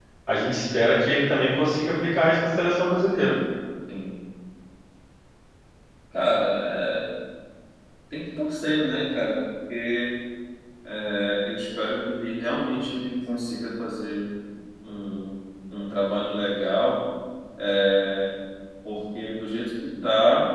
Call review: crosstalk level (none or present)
none